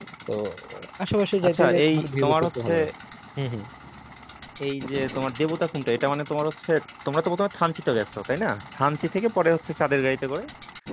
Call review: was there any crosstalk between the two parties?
Yes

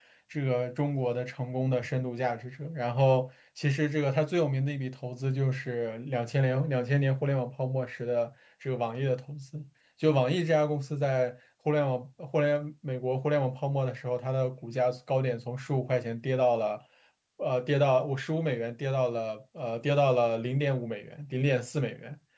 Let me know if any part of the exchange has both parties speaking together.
No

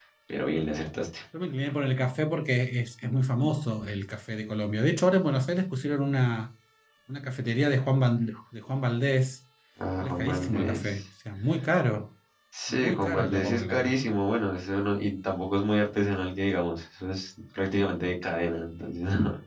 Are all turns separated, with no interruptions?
No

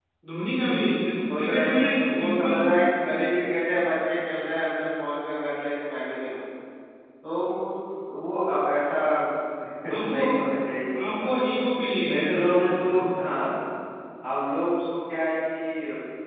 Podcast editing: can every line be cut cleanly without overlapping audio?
No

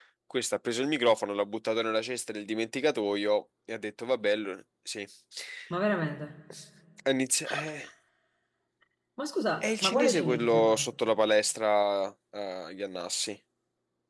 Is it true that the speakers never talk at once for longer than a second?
No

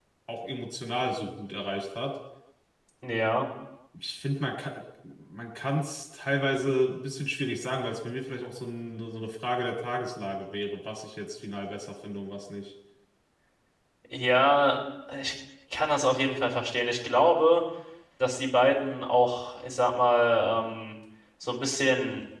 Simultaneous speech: No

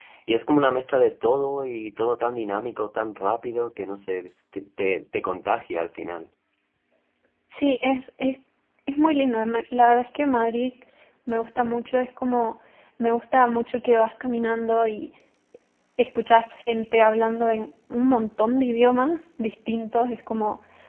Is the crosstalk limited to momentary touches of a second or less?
Yes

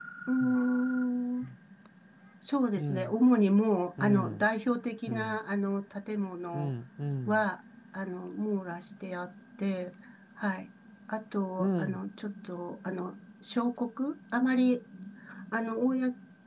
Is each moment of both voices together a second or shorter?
Yes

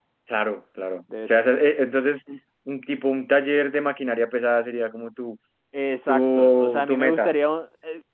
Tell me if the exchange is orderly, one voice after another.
No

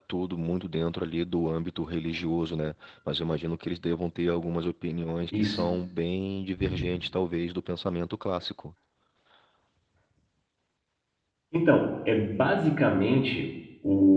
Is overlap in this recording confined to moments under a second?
Yes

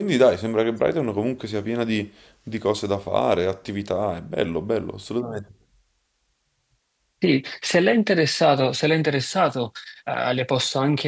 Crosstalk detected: No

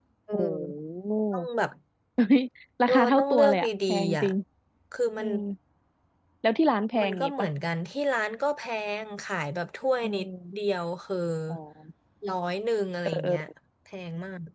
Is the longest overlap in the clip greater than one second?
Yes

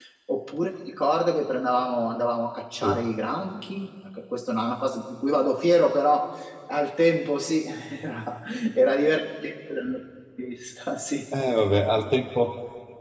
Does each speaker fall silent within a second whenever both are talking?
Yes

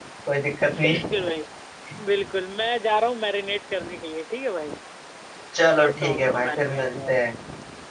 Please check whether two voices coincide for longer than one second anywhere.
Yes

